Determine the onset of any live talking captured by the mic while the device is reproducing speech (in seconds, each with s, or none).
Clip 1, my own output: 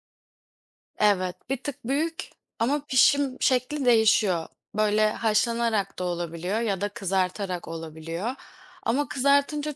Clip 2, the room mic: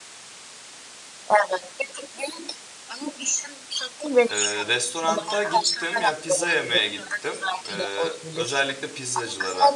4.3 s